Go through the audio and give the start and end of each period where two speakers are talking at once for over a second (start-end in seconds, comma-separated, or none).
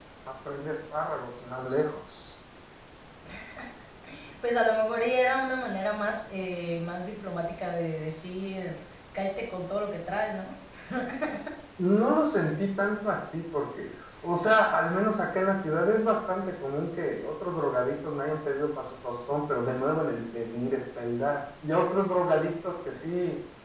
none